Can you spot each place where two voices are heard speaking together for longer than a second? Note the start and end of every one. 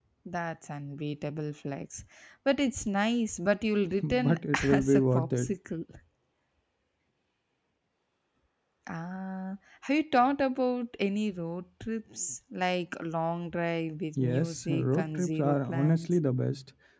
4.0-5.5, 14.2-16.2

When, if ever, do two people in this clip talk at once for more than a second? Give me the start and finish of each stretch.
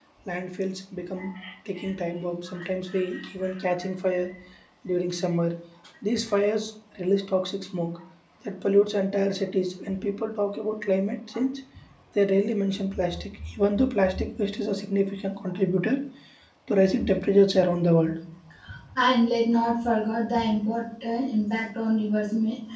none

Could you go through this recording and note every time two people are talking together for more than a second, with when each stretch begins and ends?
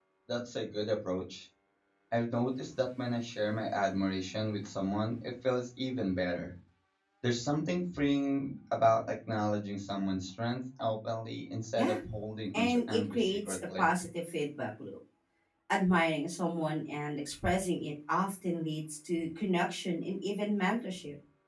12.5-13.8

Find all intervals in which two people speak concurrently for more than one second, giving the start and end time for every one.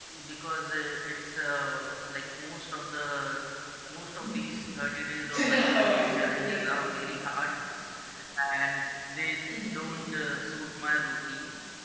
5.4-6.7

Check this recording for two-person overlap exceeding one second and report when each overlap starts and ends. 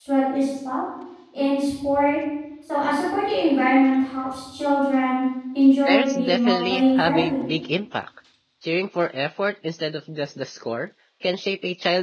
5.9-7.5

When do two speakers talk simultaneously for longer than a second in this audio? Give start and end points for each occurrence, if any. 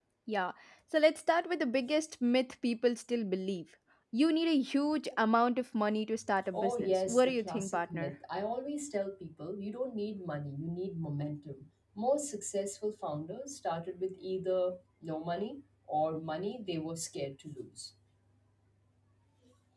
6.5-8.1

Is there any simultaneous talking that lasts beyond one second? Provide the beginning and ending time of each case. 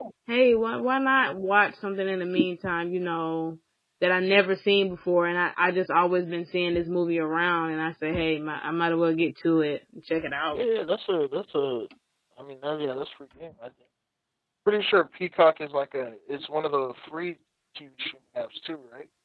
none

